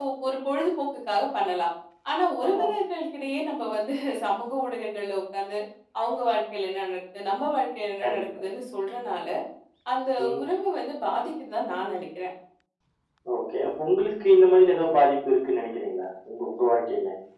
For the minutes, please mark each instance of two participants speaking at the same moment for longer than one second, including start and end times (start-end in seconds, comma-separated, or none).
none